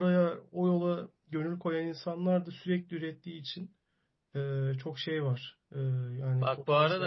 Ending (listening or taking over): taking over